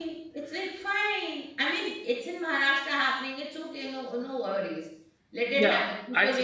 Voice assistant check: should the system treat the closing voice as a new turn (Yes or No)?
Yes